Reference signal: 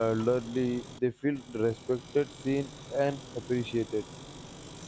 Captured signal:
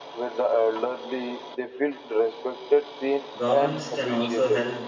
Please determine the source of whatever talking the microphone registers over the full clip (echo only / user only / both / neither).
both